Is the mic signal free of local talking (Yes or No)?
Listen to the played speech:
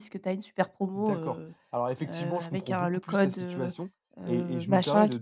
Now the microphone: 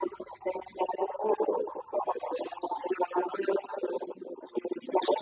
Yes